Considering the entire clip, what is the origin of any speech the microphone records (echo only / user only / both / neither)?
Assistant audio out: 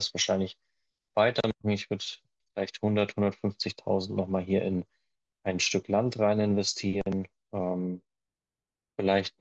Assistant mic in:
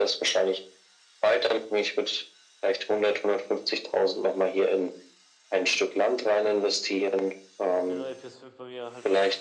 both